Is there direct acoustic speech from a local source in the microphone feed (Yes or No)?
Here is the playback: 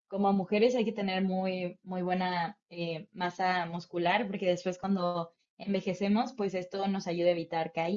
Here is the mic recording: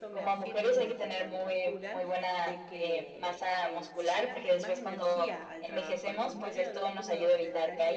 Yes